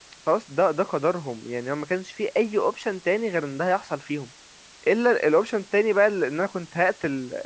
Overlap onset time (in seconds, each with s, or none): none